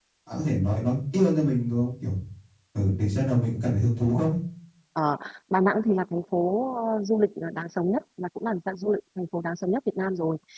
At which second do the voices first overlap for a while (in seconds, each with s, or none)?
none